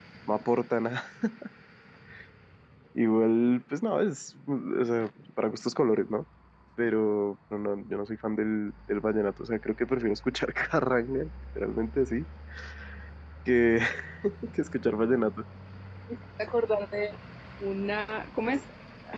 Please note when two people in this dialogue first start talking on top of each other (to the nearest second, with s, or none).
none